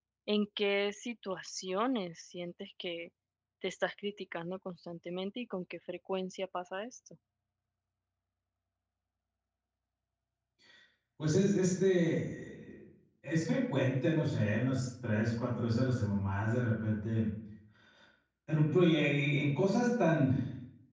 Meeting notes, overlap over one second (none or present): none